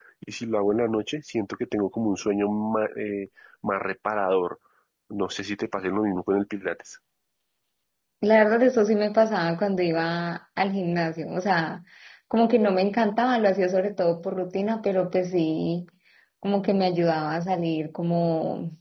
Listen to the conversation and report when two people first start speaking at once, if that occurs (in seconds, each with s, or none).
none